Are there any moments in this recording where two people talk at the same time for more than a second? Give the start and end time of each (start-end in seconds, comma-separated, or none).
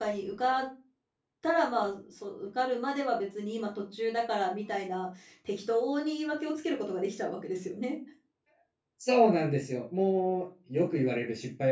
none